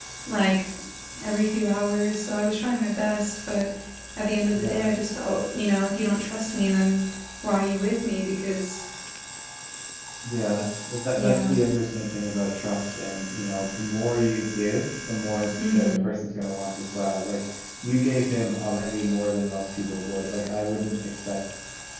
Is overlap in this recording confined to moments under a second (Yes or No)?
Yes